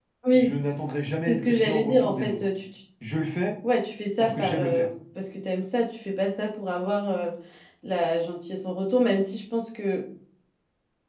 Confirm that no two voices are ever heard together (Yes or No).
No